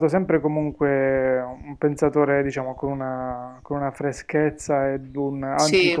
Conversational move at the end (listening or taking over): listening